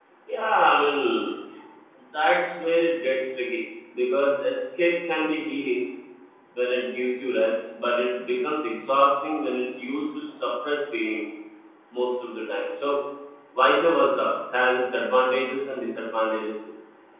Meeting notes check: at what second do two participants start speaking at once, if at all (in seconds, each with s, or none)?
none